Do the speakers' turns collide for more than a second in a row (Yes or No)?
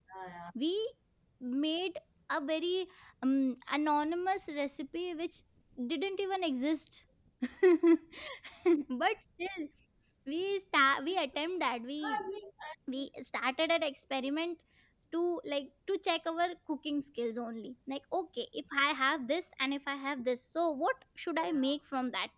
No